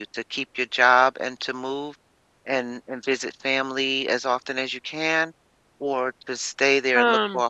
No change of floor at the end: Yes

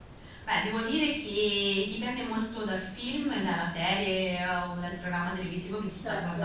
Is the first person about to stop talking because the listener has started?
No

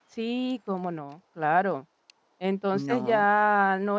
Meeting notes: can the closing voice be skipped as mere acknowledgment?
Yes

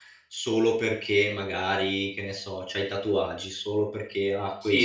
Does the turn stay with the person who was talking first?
No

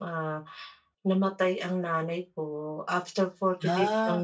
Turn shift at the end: No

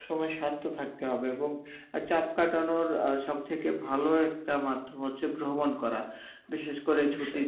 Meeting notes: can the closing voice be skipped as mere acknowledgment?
Yes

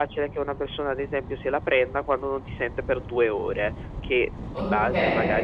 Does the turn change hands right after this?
No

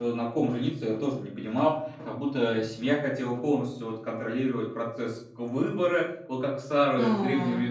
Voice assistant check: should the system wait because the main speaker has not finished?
Yes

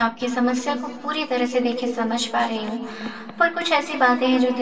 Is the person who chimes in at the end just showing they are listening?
Yes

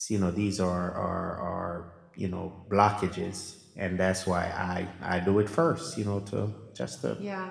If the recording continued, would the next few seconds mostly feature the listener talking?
Yes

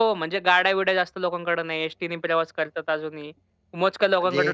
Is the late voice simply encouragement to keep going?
Yes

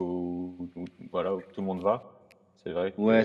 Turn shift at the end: Yes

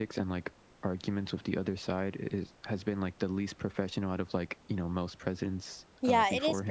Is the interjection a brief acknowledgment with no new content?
No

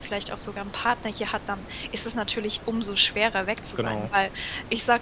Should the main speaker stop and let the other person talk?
No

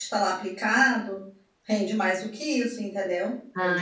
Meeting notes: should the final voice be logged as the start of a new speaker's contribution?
No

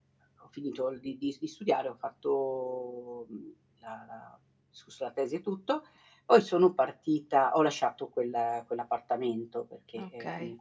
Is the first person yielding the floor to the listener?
No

